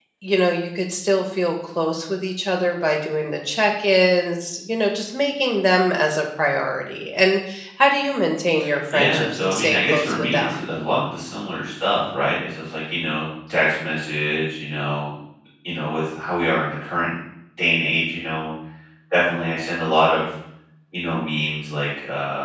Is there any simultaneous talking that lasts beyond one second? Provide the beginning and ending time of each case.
8.9-10.6

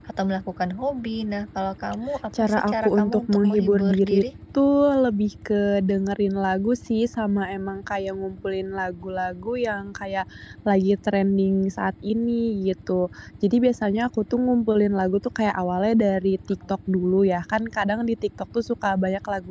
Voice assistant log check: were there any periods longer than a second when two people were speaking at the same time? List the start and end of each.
2.4-4.2

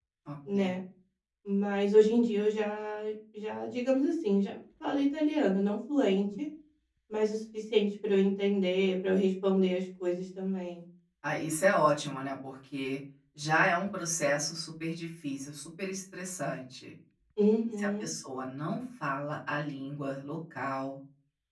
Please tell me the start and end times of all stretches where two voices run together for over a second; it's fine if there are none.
none

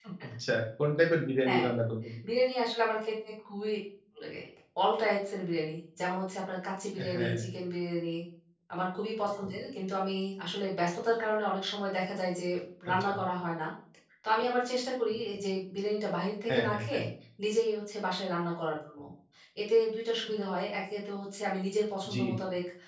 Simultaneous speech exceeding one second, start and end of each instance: none

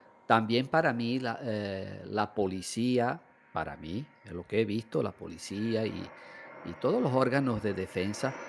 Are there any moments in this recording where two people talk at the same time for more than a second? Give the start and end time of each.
none

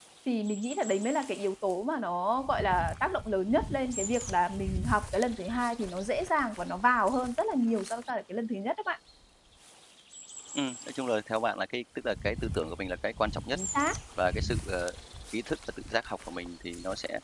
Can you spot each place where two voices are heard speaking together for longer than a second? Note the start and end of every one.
none

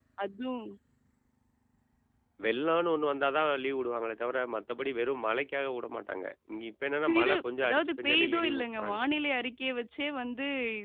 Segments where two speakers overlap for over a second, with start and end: 7.0-9.0

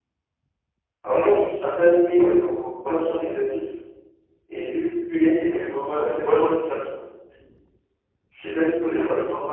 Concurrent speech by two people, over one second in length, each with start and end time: none

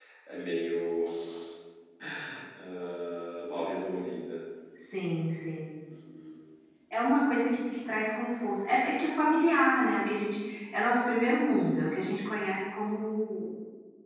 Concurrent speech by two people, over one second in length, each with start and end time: none

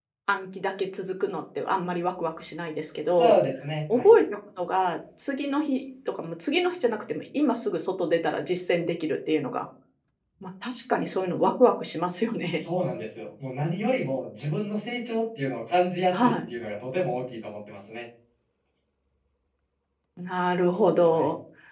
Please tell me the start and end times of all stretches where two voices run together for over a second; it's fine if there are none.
none

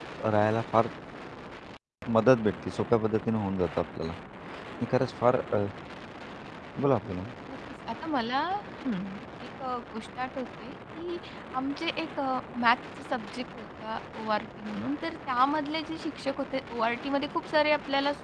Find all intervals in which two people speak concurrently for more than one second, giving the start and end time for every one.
none

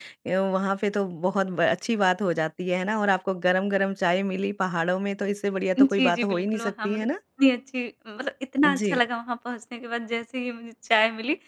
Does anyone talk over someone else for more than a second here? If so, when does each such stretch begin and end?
5.8-7.1

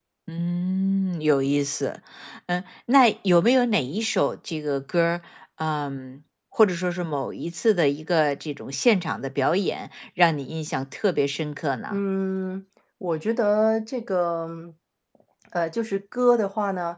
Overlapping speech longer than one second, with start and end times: none

